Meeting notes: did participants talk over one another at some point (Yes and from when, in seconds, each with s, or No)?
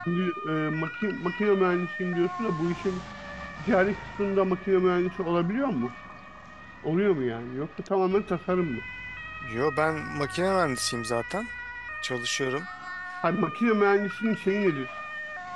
No